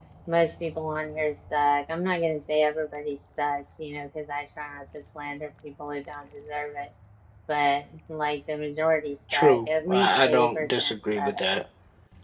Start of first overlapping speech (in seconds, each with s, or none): 9.3 s